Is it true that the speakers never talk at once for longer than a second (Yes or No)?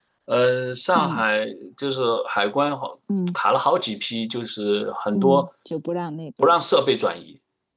Yes